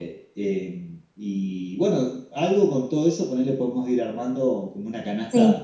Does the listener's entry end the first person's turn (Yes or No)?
Yes